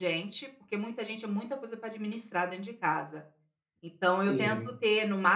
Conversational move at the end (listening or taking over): listening